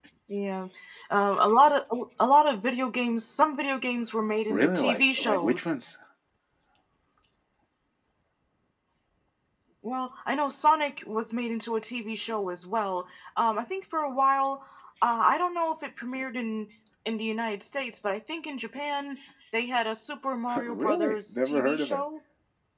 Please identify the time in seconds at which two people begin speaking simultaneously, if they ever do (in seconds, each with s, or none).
4.5 s